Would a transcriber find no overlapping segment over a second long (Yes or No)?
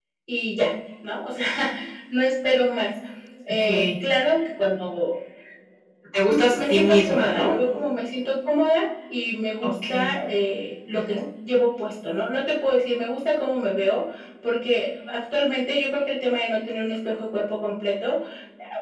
No